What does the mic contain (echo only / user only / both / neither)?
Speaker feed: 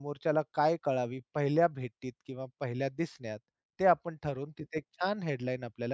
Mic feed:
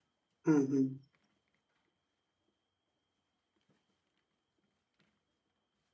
user only